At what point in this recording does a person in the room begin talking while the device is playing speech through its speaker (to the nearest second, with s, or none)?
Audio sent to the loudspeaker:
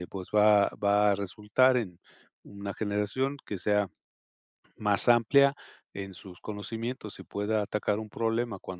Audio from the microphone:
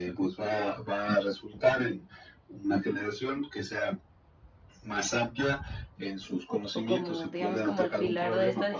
7 s